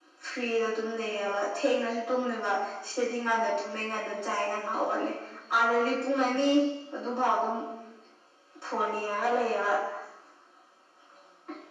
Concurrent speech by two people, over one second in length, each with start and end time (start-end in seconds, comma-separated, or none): none